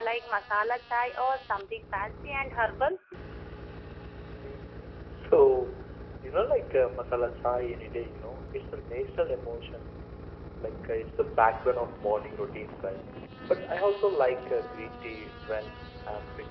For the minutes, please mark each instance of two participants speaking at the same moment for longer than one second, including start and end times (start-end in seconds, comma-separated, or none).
none